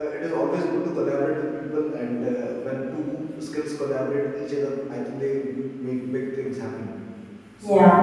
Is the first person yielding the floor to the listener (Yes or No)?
No